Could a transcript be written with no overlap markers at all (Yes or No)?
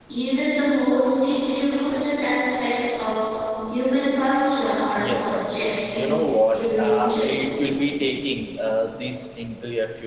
No